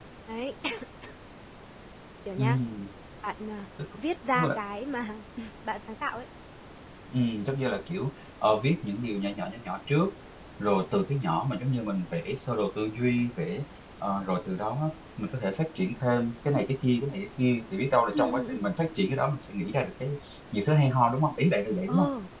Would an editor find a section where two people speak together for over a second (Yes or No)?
No